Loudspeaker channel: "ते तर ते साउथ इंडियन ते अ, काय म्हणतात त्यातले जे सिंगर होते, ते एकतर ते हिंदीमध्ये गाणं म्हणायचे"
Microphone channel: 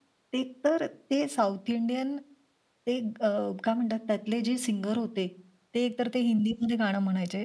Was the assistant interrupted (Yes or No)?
No